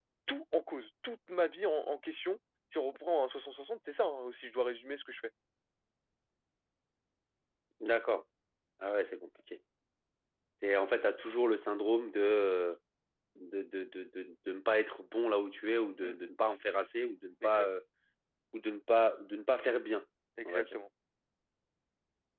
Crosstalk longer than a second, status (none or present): none